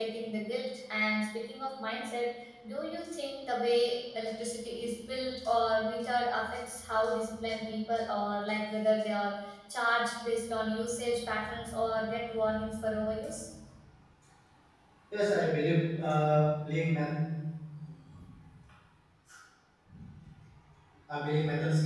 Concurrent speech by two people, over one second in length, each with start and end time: none

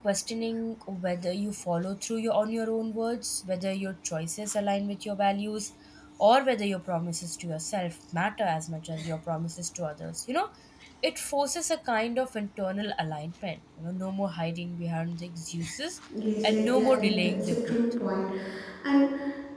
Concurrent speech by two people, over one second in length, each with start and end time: 16.4-17.8

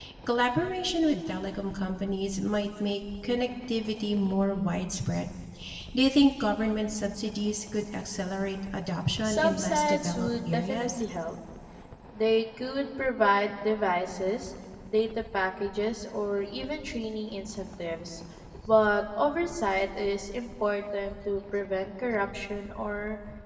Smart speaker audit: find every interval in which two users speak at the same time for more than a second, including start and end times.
9.2-11.0

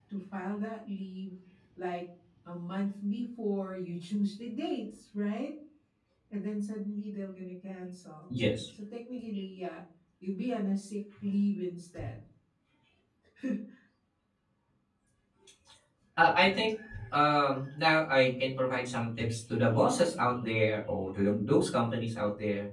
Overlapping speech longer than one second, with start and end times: none

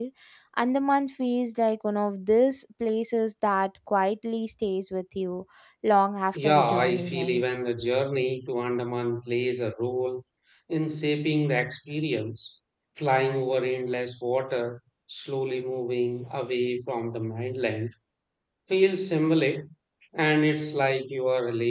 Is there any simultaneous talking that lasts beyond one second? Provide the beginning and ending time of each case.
6.3-7.6

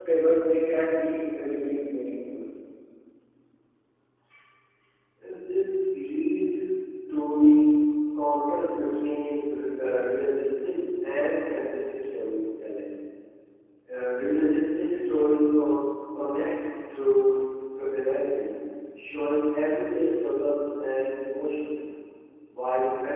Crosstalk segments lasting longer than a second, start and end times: none

